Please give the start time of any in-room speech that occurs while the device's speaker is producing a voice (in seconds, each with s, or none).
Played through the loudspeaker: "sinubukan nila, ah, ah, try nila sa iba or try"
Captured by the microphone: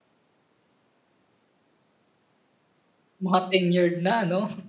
3.2 s